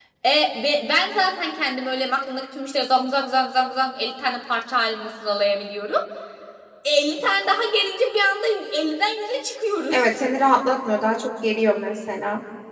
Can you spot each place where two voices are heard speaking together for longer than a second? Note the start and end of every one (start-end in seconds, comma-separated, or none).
none